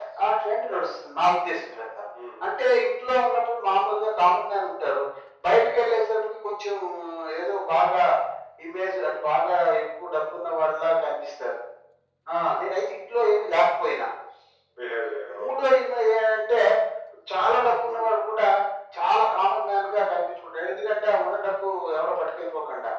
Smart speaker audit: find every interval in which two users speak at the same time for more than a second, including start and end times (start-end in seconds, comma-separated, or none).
none